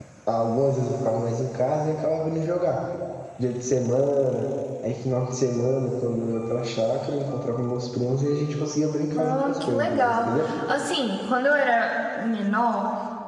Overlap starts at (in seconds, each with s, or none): 9.2 s